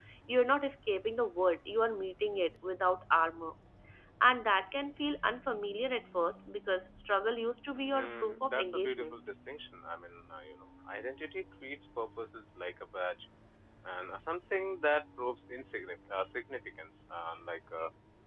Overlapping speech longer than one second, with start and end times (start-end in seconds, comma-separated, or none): 7.9-9.1